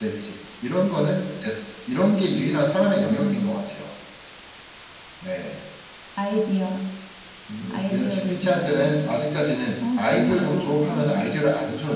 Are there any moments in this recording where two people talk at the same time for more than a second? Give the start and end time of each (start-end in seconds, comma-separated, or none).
7.7-9.1, 10.0-11.3